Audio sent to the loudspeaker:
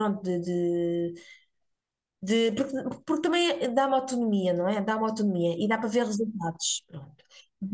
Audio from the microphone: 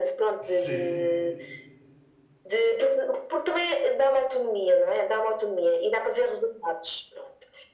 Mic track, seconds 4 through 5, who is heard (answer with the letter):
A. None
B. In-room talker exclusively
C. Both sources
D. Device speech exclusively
D